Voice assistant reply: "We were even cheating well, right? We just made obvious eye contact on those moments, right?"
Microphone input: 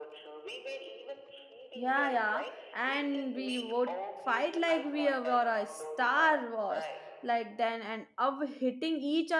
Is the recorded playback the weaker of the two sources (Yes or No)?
Yes